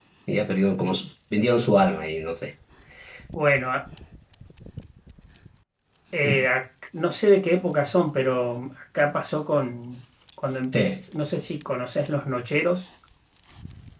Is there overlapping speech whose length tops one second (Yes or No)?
No